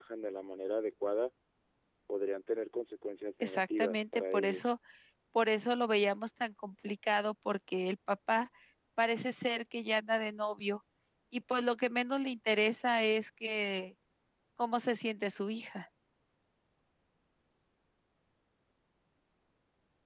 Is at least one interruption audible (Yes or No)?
Yes